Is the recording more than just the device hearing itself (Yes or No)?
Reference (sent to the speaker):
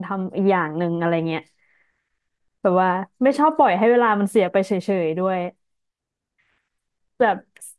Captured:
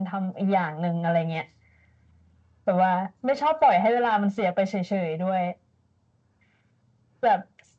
No